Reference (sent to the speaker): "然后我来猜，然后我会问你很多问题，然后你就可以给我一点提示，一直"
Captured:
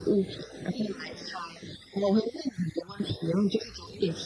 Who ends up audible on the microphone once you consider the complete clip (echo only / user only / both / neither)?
both